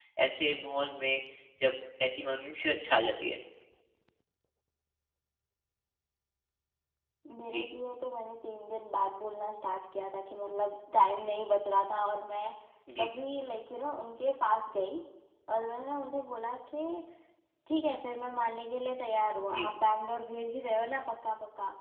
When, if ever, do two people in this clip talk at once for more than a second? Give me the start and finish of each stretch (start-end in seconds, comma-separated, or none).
none